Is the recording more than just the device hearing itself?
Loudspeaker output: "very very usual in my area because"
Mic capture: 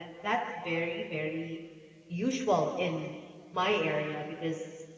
No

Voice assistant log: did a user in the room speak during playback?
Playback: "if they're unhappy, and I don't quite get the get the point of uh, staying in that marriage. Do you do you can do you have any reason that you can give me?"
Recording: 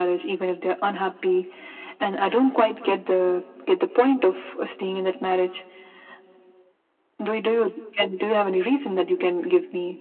No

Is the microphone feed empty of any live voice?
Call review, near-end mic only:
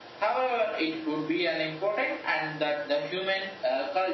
Yes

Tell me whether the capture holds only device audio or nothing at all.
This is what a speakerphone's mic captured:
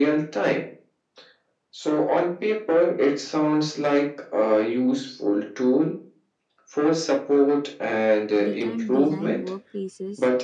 No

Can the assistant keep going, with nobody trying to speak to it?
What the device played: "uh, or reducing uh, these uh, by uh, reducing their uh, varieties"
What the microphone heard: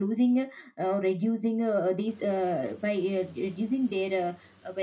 Yes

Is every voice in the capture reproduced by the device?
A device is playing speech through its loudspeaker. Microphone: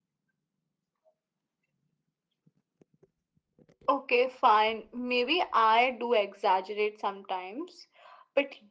Yes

